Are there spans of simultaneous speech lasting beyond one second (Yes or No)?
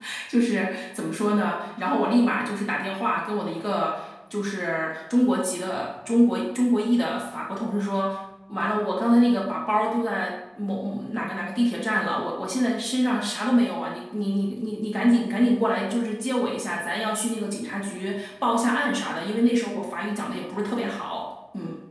No